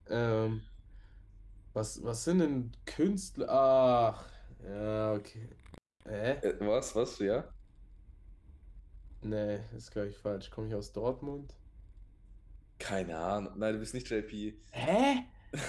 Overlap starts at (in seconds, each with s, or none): none